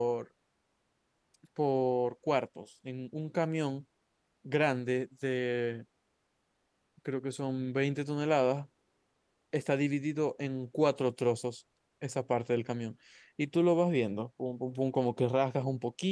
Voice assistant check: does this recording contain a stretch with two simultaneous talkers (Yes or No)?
No